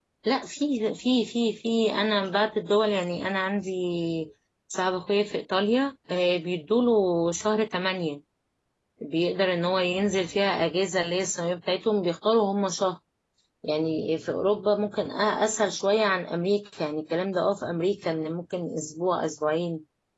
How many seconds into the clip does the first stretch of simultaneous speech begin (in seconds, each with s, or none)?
none